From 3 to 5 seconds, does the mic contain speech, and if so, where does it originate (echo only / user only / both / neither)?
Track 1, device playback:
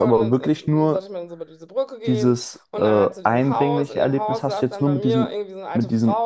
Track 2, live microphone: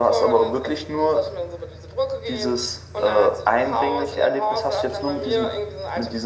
echo only